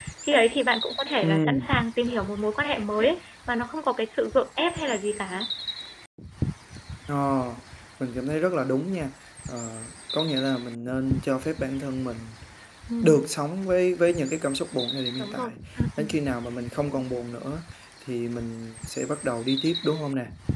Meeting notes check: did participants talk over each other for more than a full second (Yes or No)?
No